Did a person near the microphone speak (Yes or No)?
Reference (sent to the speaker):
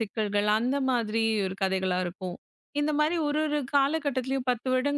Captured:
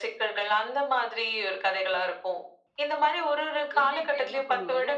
Yes